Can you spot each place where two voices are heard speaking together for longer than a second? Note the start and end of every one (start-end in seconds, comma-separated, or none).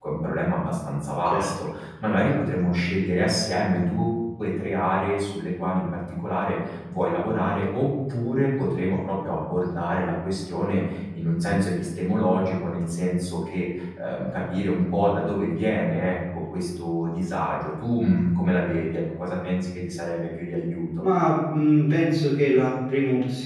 none